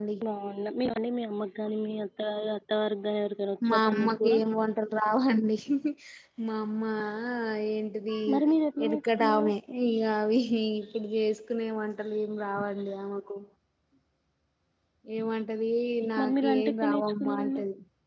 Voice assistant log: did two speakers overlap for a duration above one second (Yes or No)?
Yes